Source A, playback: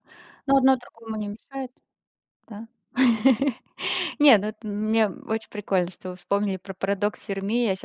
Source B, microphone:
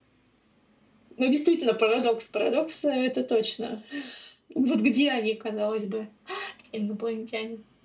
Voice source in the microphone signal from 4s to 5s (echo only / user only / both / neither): user only